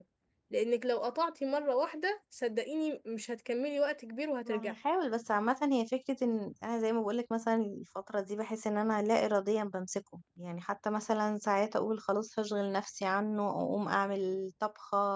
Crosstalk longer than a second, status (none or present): none